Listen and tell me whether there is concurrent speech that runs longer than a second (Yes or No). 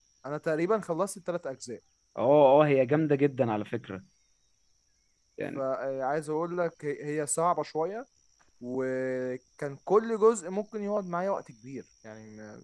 No